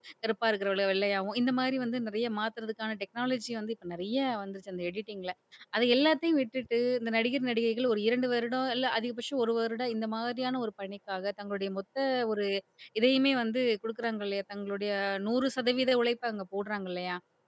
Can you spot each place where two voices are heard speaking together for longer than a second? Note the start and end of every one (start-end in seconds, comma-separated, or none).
none